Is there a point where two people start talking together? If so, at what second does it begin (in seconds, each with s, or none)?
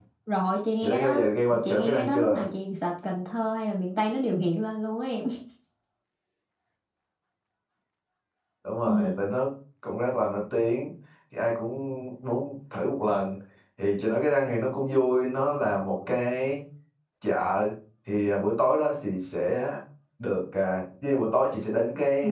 0.8 s